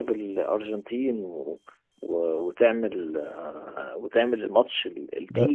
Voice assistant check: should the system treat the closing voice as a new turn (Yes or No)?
Yes